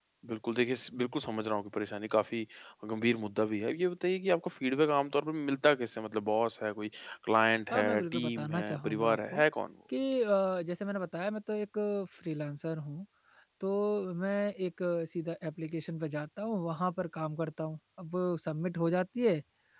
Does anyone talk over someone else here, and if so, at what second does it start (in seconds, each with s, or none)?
7.7 s